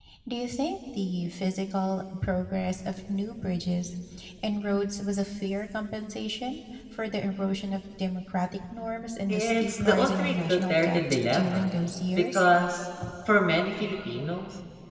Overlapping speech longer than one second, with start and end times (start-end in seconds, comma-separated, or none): 9.3-11.7